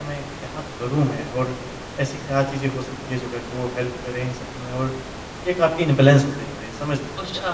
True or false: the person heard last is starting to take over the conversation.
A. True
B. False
A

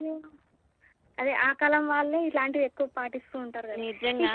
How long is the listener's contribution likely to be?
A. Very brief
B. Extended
A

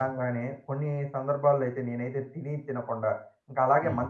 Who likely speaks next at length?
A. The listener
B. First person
B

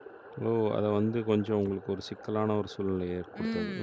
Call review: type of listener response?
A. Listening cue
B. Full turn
B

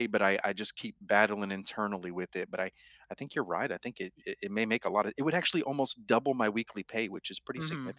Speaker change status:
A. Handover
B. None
A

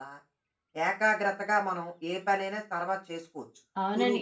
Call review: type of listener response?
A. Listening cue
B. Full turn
B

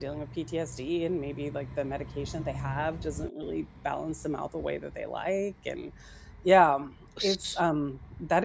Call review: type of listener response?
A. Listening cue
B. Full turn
A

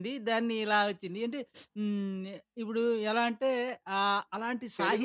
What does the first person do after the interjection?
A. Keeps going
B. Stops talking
B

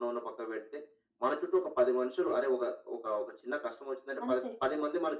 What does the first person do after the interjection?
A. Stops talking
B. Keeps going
B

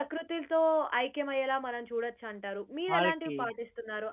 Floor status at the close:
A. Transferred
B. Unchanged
B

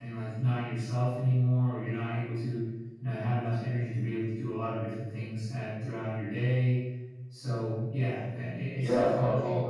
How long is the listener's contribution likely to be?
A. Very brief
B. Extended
B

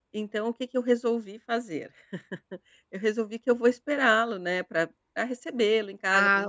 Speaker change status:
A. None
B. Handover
A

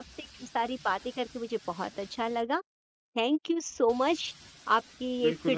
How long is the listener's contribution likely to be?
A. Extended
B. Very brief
A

